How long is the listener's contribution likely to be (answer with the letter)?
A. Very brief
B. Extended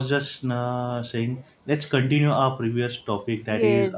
B